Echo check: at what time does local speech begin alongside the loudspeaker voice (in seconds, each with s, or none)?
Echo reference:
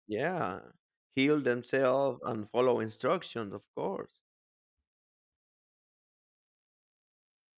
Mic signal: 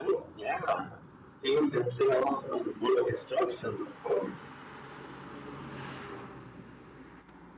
none